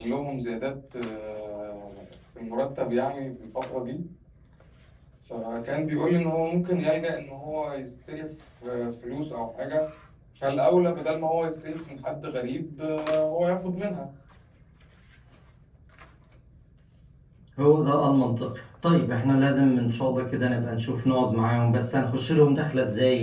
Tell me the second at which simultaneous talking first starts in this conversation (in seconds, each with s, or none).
none